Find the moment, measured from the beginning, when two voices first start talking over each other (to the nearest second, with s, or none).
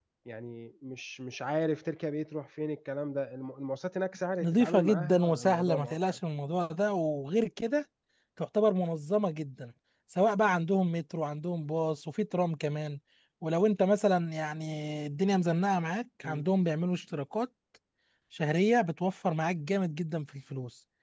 4 s